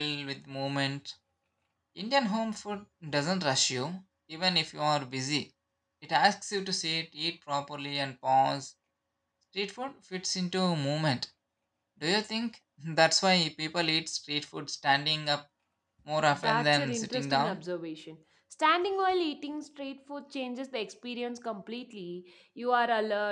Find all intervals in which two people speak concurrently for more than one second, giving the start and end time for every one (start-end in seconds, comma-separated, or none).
16.3-17.6